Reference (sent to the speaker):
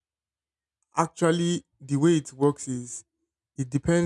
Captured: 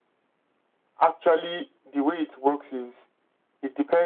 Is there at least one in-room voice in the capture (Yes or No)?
No